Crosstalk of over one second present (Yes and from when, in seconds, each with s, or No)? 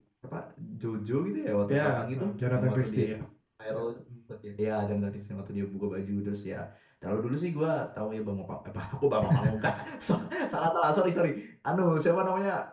Yes, from 1.7 s